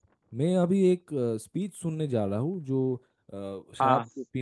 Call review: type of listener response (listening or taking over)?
listening